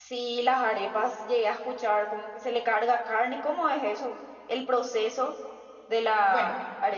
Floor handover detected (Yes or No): Yes